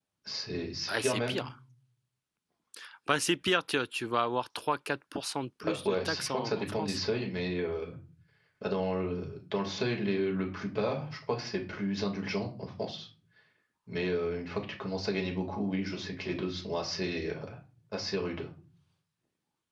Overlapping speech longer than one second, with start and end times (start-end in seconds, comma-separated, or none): 5.7-7.0